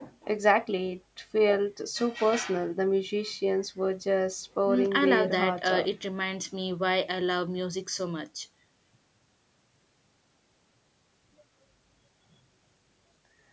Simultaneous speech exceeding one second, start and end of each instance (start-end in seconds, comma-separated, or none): 4.7-5.9